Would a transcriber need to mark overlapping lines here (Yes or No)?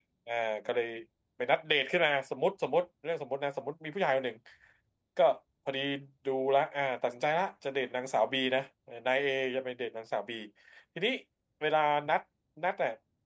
No